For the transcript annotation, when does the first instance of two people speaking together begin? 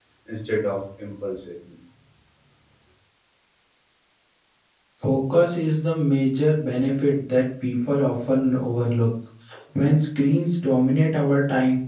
none

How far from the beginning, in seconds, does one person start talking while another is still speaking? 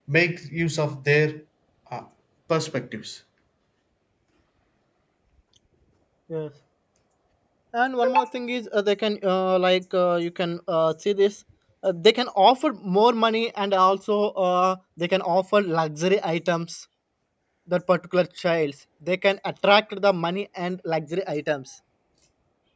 none

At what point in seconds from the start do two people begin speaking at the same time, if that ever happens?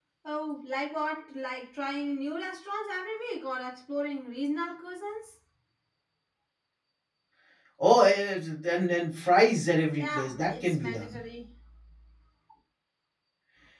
10.0 s

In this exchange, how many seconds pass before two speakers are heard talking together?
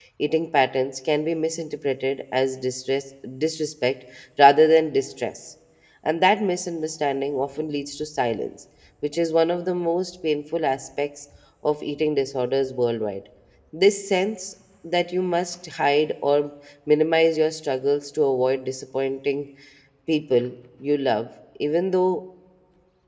none

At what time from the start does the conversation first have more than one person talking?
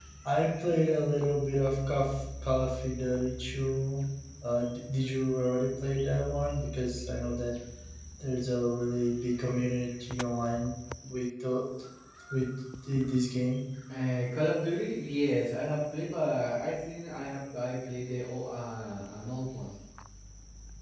none

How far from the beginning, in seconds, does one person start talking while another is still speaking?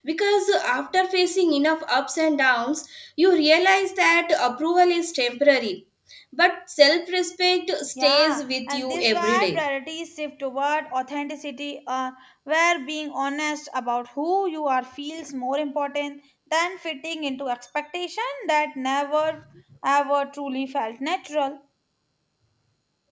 8.0 s

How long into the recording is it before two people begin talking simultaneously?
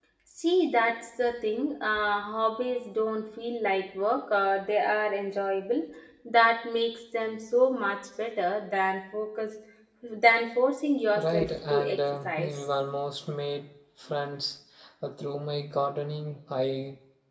11.2 s

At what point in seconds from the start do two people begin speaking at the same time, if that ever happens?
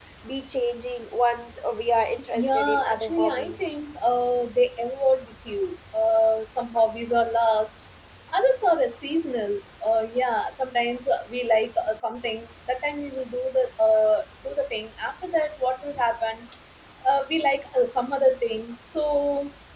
2.3 s

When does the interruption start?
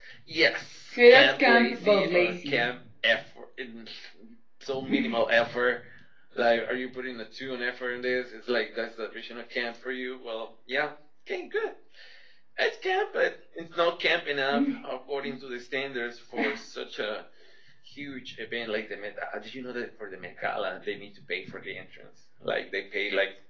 1.0 s

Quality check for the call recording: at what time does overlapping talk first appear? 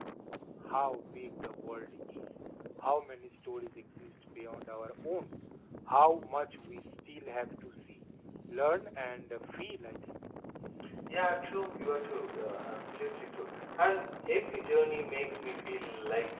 none

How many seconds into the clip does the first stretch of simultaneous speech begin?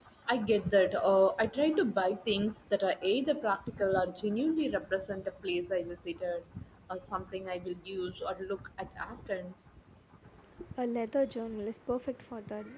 none

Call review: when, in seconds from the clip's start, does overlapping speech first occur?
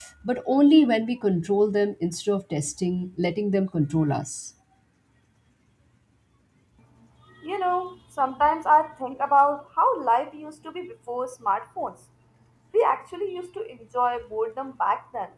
none

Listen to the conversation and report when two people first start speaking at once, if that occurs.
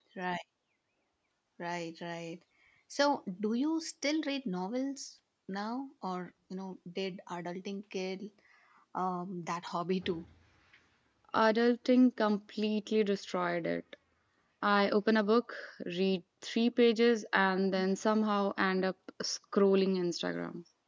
none

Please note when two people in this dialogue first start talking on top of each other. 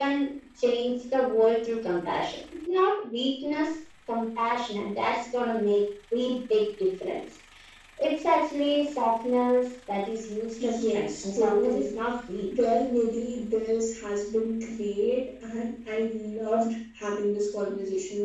10.6 s

